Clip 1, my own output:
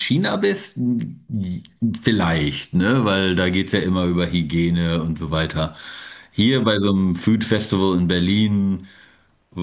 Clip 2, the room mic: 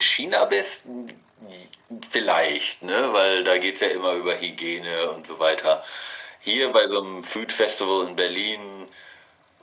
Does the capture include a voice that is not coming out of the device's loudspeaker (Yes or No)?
No